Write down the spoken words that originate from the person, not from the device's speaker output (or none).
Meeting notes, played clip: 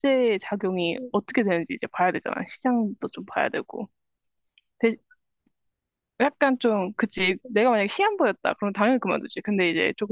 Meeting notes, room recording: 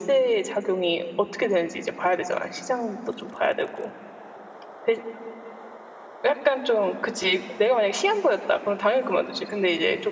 none